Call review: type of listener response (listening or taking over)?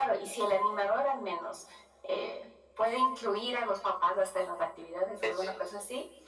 listening